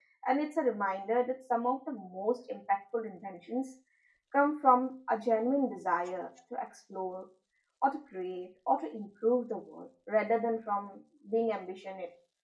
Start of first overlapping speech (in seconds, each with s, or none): none